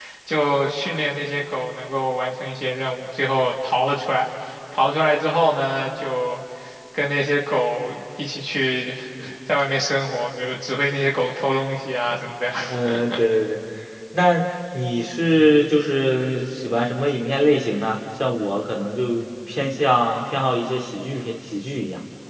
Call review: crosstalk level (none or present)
none